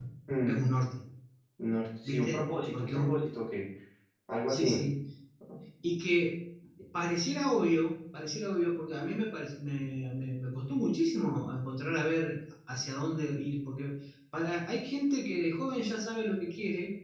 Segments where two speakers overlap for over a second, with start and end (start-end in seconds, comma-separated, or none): 2.0-3.3